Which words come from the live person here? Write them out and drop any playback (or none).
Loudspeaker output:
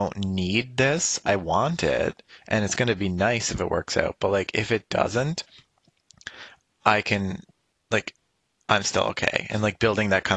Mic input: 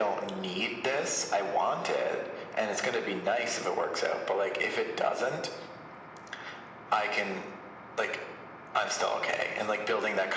none